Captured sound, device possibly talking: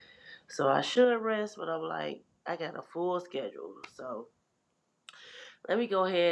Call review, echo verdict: none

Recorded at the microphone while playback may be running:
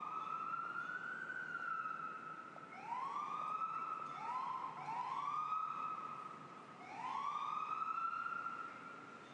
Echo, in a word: none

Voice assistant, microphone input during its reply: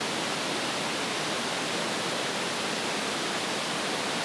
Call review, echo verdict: none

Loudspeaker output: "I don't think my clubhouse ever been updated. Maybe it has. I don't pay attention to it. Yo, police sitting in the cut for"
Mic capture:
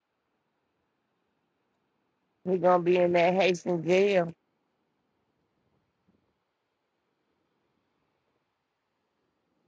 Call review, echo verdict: none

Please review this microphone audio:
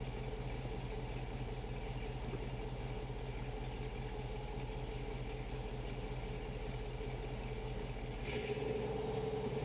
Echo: none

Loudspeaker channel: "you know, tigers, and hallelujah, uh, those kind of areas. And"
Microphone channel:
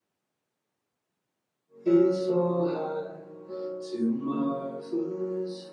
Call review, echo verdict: none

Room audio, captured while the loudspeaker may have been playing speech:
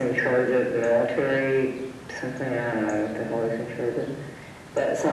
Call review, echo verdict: present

